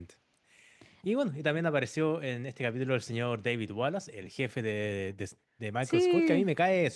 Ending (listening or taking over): listening